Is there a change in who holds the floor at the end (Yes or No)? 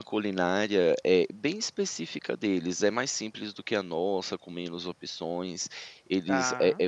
No